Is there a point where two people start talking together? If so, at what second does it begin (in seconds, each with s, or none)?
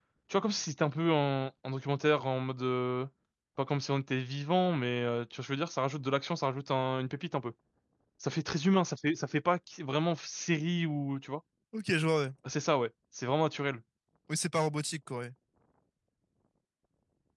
none